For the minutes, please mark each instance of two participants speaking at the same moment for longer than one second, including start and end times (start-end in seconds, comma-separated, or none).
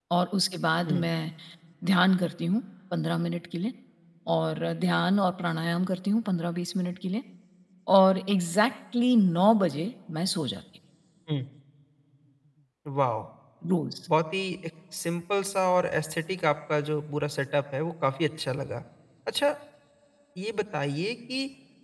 none